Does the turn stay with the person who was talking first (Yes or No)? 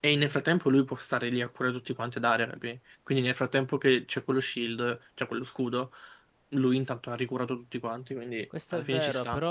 No